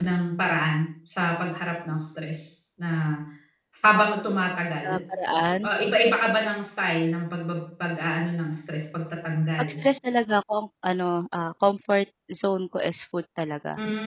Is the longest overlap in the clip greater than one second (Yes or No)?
No